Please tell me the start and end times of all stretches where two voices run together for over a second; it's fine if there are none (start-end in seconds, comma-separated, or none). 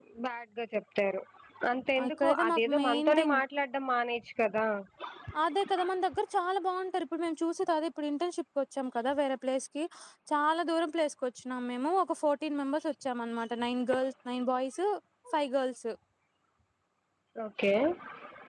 2.0-3.4